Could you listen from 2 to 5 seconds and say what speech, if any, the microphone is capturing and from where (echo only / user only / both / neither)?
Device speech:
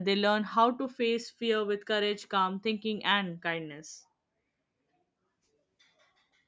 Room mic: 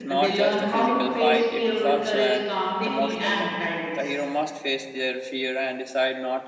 both